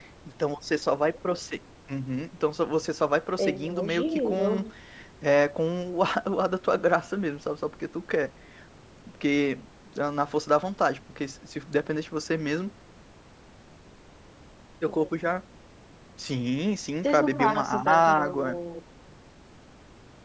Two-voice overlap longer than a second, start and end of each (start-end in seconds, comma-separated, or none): 3.4-4.6, 17.0-18.6